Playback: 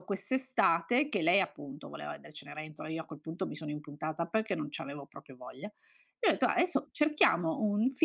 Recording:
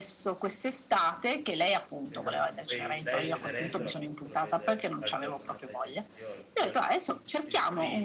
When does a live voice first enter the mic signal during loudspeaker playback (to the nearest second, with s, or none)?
2 s